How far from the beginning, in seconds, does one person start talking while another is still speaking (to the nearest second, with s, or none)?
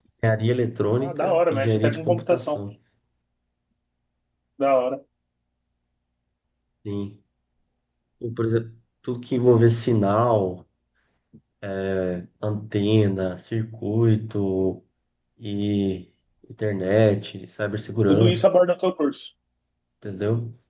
1 s